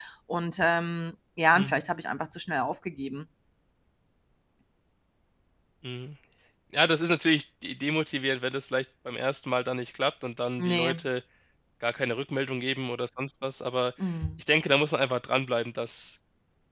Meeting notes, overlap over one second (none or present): none